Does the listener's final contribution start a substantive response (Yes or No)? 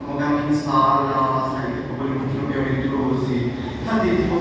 No